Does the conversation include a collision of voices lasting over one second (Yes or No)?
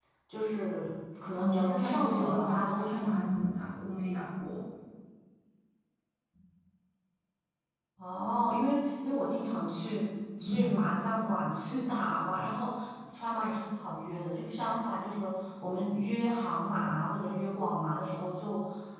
Yes